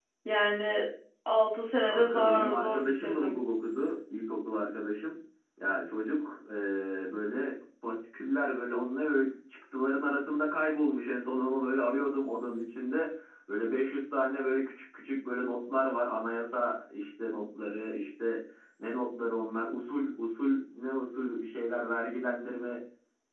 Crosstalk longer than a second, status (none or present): present